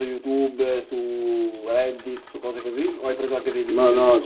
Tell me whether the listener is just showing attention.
No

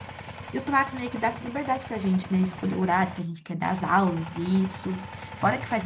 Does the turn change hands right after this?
No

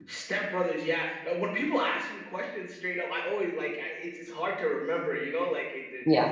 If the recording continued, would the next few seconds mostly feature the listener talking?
No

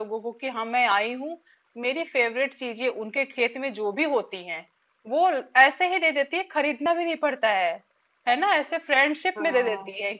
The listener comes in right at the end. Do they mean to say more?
No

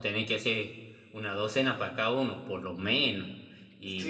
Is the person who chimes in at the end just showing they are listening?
No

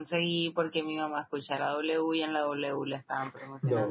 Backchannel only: No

